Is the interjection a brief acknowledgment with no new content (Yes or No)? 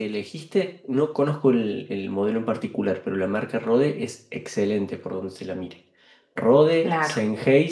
Yes